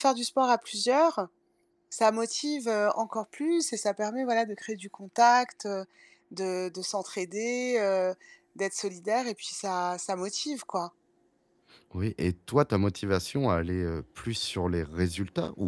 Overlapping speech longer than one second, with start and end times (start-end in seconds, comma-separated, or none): none